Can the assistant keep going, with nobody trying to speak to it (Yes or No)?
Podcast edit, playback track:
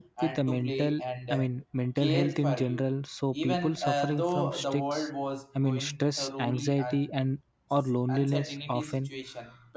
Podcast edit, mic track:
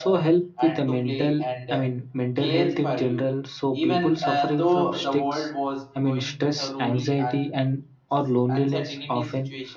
Yes